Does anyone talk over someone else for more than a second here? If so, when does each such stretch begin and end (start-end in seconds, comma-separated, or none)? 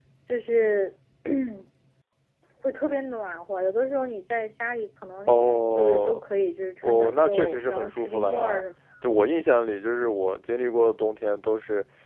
6.9-8.6